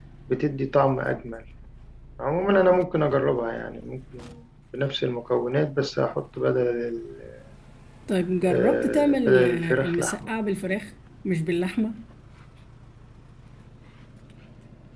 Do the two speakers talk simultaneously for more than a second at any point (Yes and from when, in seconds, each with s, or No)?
Yes, from 8.5 s